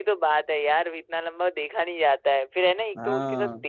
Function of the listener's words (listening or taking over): listening